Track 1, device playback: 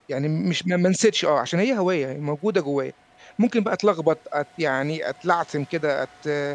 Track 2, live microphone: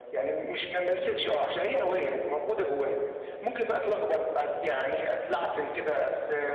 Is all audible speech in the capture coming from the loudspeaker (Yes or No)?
Yes